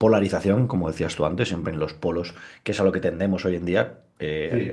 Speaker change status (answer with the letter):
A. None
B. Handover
A